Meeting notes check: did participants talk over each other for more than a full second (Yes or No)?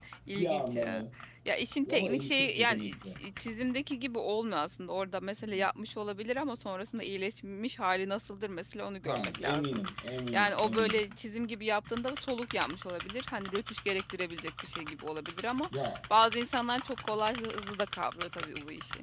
Yes